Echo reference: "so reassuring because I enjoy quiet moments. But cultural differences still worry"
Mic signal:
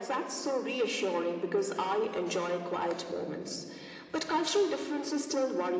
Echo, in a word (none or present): present